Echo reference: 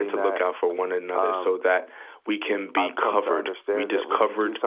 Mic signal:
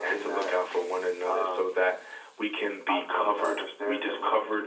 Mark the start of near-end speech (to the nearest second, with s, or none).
none